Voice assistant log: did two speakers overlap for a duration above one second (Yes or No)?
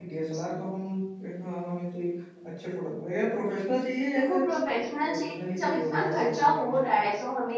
Yes